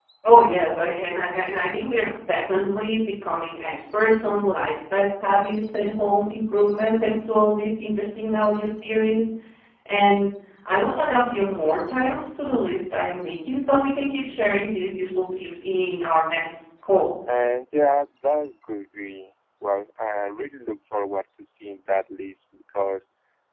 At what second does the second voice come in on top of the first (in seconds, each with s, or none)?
none